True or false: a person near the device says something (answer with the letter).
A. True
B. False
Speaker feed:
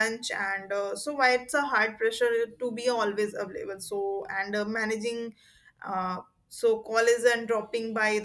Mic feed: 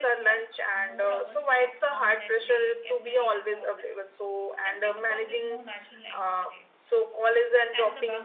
A